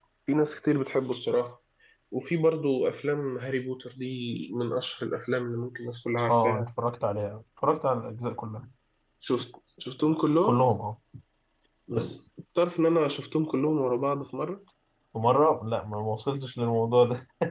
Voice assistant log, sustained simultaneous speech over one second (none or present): none